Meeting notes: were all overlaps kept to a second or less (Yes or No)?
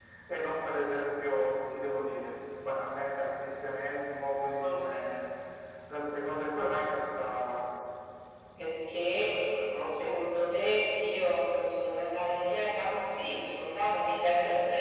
Yes